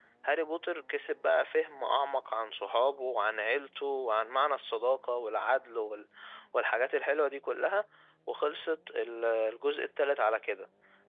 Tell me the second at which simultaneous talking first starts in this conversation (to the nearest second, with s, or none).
none